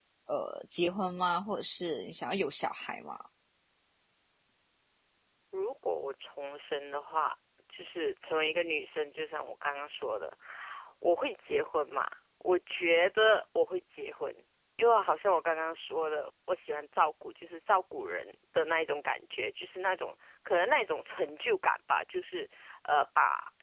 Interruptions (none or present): none